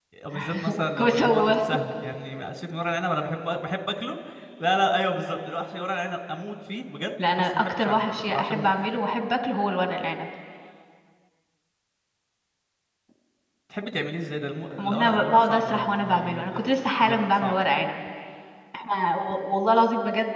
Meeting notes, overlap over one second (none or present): present